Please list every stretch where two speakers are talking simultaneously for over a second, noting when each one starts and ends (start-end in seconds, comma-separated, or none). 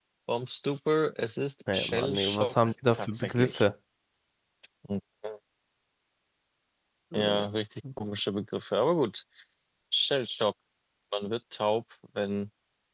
1.7-3.6